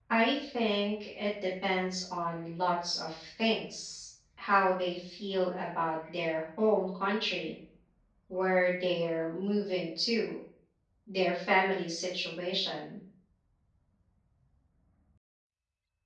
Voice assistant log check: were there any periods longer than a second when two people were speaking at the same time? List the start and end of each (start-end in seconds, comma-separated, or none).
none